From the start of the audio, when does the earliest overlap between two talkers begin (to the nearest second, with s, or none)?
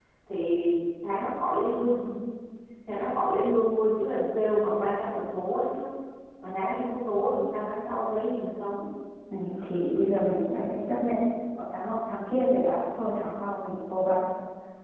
none